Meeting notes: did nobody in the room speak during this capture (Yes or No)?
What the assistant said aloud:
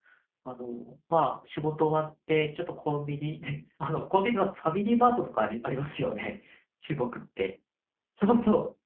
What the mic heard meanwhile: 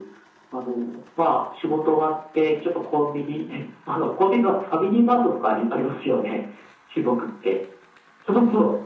Yes